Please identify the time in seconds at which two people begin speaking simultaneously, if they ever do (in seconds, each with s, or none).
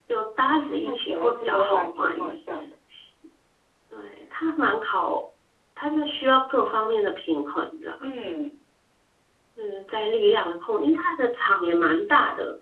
0.8 s